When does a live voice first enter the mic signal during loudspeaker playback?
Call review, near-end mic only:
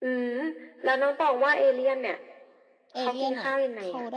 2.9 s

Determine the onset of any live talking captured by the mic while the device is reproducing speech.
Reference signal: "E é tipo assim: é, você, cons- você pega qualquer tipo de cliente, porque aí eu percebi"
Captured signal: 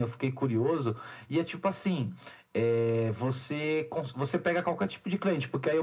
none

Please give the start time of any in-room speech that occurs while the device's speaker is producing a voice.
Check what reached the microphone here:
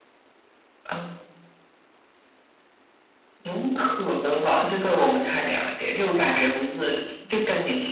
none

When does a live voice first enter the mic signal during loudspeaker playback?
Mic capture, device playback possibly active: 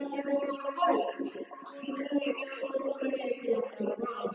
none

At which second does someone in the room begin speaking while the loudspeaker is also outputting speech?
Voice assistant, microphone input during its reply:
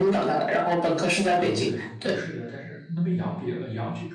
1.3 s

